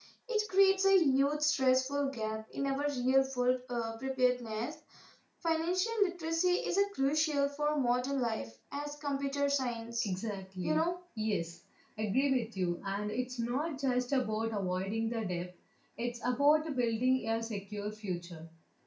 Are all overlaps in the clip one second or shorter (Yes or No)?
Yes